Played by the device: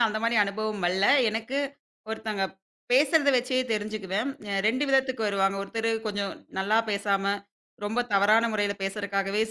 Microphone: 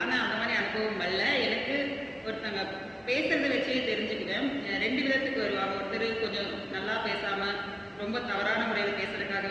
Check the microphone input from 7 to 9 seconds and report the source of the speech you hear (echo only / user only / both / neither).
echo only